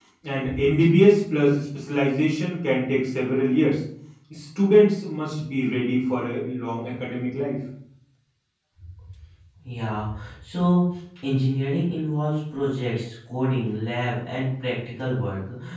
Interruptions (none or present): none